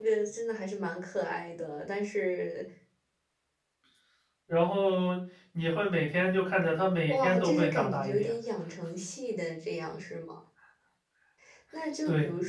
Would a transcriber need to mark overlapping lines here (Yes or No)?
Yes